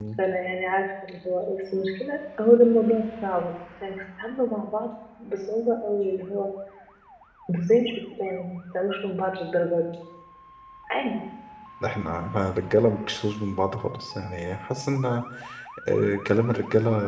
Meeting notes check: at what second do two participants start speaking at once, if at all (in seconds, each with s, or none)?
none